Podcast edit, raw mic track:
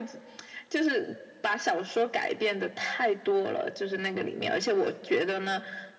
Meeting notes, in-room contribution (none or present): none